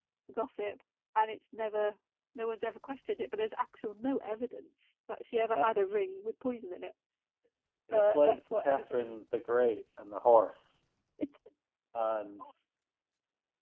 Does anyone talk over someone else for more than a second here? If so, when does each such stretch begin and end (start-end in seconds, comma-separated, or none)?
7.9-9.2